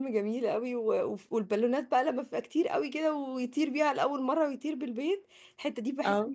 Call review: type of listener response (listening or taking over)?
listening